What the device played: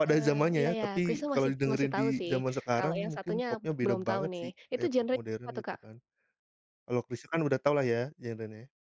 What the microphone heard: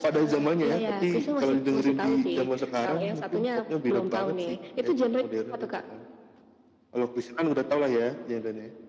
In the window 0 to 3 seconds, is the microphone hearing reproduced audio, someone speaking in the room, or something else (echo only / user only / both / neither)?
echo only